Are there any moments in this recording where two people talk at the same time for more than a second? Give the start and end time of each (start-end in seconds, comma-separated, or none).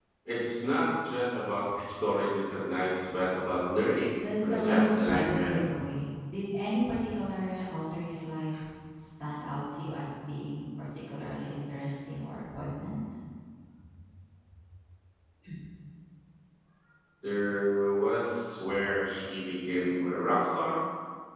4.2-5.6